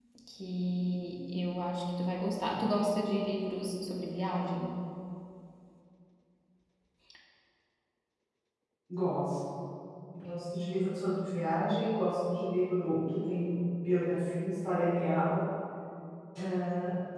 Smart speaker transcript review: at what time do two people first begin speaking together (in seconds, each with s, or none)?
none